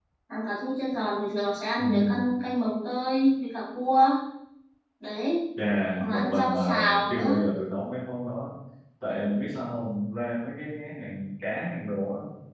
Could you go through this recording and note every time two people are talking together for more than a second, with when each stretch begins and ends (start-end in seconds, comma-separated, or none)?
6.0-7.2